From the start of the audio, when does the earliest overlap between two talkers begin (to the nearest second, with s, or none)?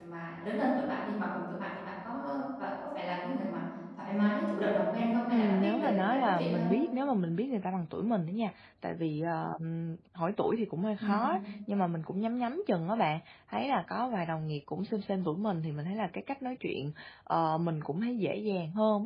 5 s